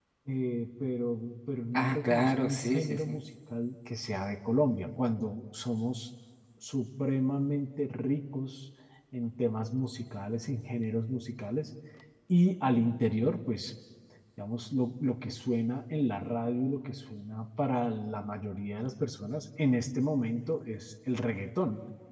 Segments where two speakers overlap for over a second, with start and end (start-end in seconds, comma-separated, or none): 1.7-3.2